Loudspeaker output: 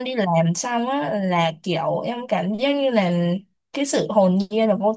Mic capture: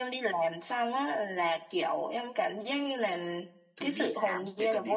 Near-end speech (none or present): present